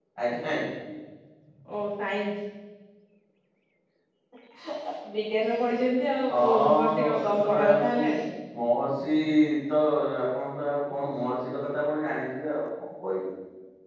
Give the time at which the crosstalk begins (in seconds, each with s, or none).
6.3 s